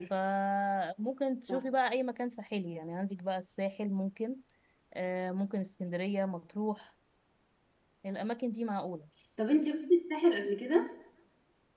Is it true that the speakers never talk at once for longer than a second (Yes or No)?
Yes